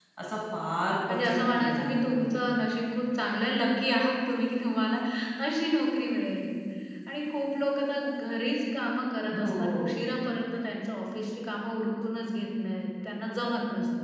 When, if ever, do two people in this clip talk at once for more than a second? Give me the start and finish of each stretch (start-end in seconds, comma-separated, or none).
1.1-2.3